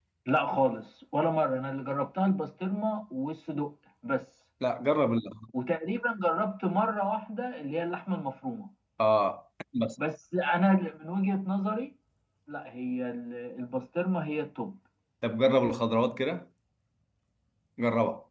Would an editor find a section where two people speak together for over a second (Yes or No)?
No